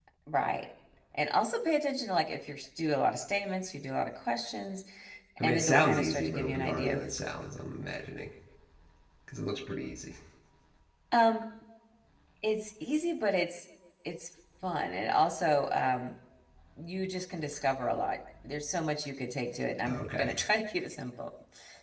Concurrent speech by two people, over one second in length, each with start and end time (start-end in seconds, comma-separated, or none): 5.4-7.0